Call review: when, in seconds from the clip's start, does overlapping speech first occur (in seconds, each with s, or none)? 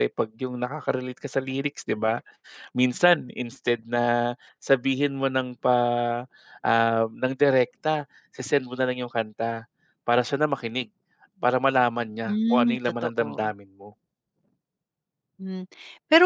12.3 s